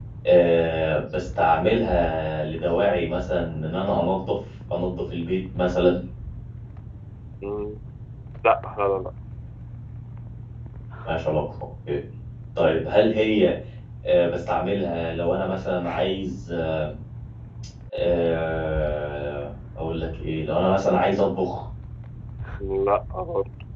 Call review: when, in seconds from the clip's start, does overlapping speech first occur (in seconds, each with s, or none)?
none